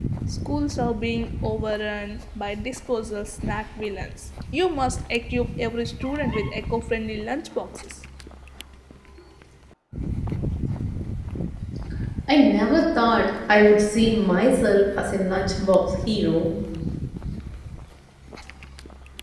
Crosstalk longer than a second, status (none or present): none